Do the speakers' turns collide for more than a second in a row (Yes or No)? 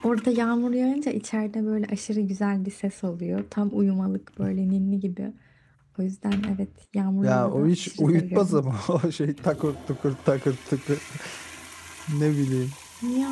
Yes